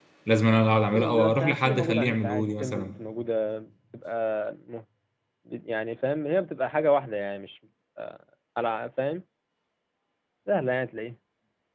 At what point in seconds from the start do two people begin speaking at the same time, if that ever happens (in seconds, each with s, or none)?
0.7 s